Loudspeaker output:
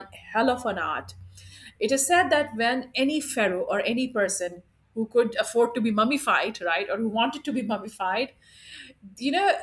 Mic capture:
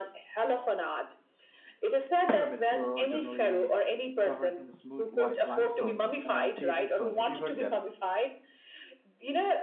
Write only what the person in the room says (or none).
pyramids were originally covered in smooth white limestone, uh, chasing stone. Have you heard that?